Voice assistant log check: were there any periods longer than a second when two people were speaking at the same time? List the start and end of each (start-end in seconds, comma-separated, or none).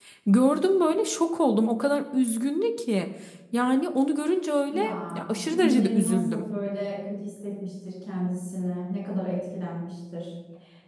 4.7-6.4